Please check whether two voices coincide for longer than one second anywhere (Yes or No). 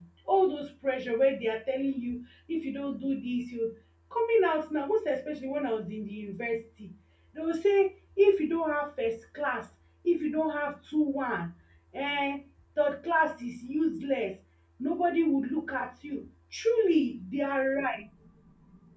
No